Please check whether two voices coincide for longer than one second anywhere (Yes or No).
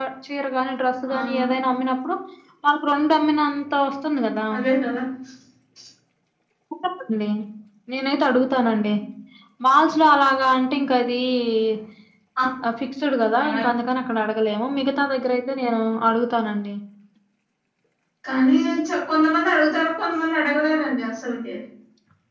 No